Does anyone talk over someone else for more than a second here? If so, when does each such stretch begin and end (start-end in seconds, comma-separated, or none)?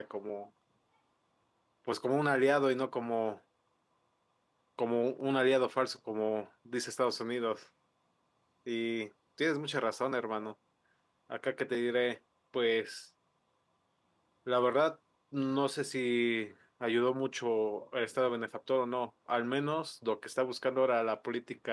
none